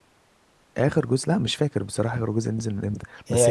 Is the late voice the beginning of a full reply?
No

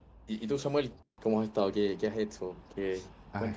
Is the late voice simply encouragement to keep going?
No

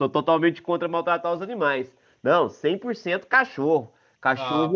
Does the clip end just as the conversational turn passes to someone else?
No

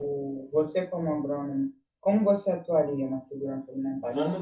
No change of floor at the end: No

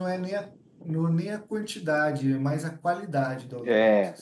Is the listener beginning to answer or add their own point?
Yes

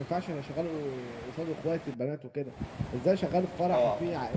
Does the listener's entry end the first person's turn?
No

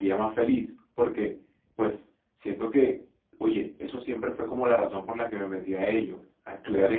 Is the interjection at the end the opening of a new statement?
No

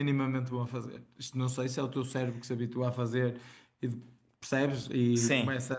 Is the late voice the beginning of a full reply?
No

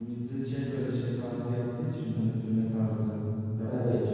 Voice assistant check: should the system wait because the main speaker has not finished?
Yes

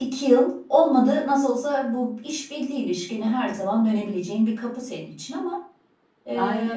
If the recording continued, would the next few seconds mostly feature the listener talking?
Yes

